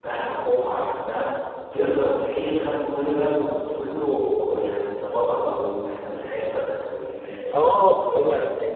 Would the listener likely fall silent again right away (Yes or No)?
No